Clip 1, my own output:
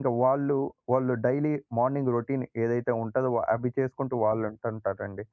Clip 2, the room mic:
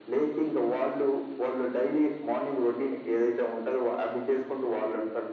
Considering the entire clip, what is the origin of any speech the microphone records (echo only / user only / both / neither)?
echo only